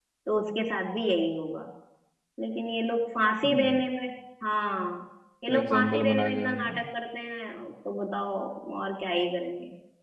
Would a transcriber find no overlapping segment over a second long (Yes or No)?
No